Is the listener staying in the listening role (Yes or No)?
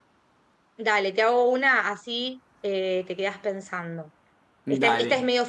Yes